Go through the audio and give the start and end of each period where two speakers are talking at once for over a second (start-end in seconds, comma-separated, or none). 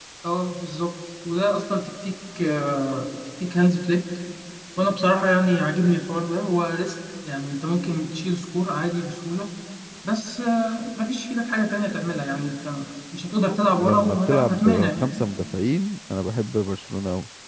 13.8-15.1